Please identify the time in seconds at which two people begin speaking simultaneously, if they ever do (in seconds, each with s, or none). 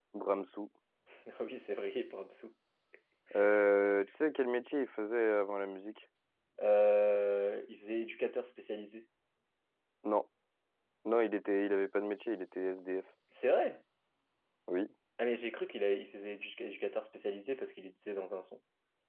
none